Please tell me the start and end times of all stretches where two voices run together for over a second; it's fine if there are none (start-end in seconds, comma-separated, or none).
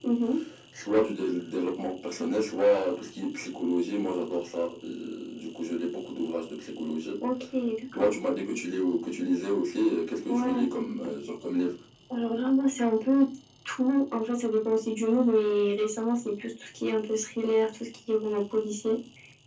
none